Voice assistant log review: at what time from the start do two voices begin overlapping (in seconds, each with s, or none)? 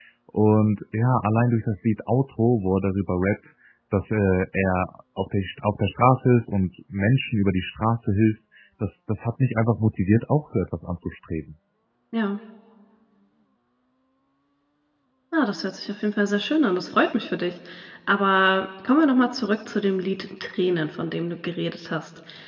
none